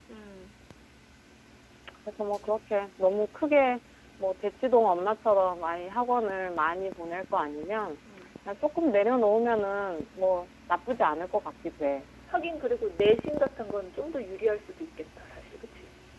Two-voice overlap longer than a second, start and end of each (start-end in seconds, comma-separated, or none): none